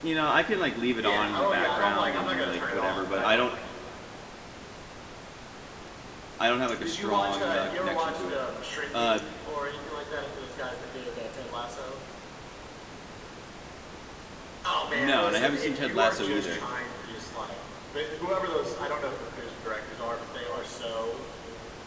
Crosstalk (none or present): present